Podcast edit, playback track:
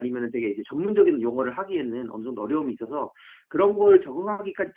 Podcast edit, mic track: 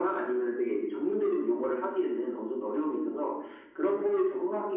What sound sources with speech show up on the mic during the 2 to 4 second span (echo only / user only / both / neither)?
echo only